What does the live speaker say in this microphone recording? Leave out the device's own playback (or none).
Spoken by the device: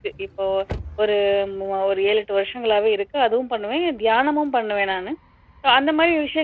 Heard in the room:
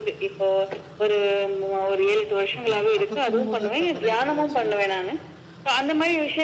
ஓகேங்க. அப்ப தூங்கும்போதாச்சும், அந்த நைட் எதாச்சு